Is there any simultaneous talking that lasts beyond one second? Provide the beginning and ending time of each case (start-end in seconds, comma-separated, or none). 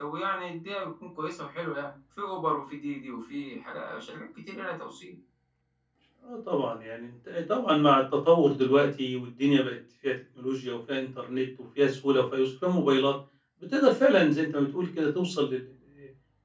none